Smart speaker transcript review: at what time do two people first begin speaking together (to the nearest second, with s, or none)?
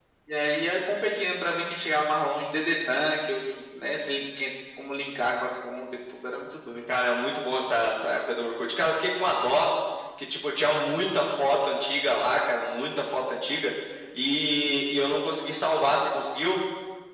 none